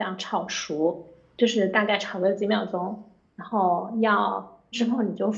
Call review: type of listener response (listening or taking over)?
listening